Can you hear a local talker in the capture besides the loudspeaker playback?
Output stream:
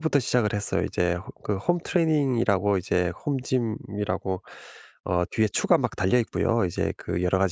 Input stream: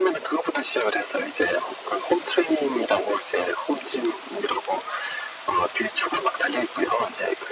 No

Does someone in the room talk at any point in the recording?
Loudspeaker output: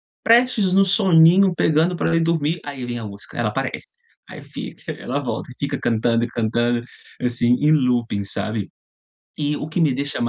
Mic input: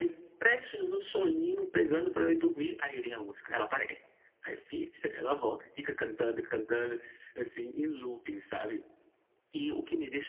No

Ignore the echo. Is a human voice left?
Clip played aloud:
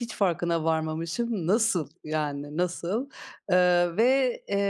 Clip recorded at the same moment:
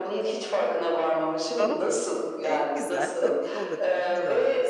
Yes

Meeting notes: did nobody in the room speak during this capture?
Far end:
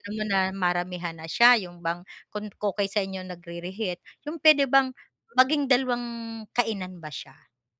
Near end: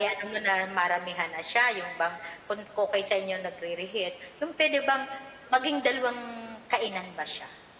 Yes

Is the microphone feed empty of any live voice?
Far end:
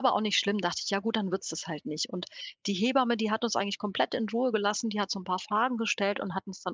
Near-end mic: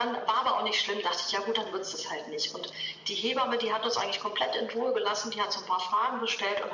Yes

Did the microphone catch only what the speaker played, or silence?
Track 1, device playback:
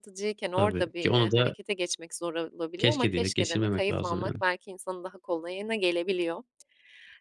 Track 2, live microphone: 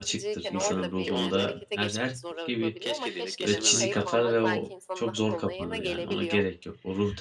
No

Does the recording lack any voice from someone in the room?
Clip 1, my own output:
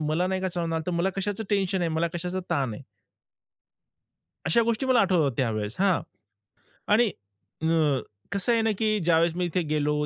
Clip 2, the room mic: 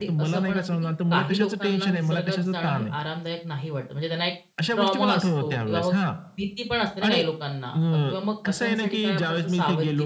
No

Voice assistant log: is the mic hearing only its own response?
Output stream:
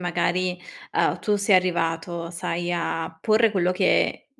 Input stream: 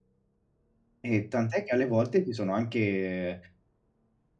No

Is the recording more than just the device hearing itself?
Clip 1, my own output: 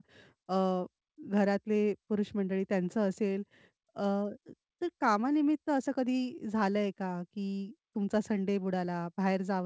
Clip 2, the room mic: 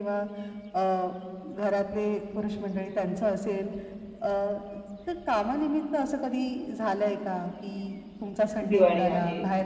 Yes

